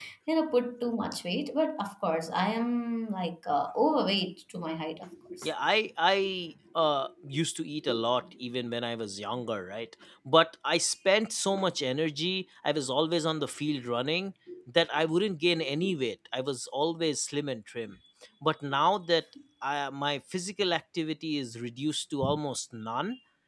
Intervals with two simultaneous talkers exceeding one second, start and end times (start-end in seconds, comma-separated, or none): none